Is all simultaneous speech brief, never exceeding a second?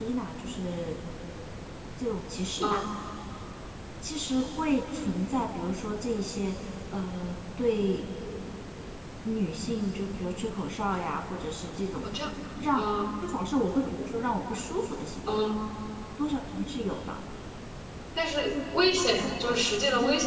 Yes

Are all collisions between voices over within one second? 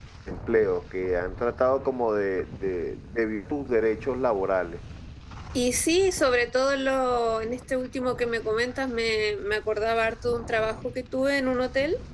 Yes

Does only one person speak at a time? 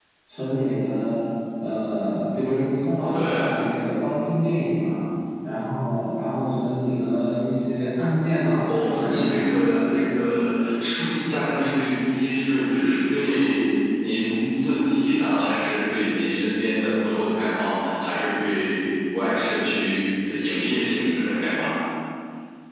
No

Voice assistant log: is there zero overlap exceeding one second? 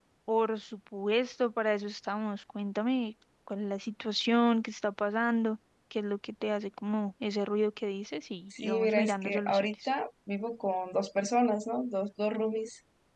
No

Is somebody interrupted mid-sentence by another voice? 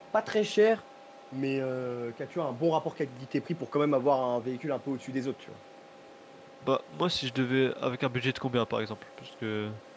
No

